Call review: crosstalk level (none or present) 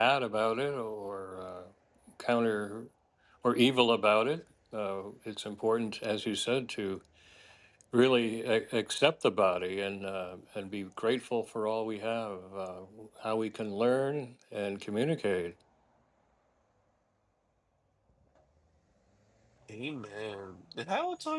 none